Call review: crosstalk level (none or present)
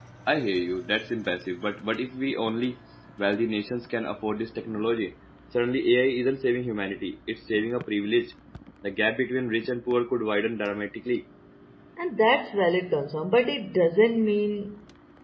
none